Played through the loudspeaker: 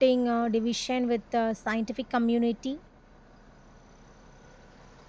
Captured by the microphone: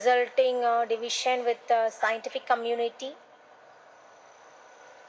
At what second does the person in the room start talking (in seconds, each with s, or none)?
none